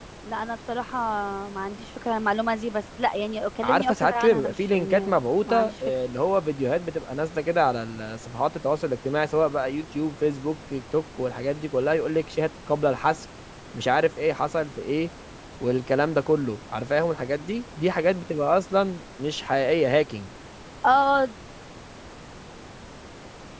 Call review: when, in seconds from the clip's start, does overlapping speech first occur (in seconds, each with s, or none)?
3.6 s